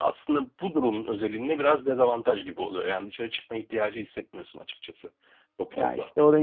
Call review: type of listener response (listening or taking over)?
taking over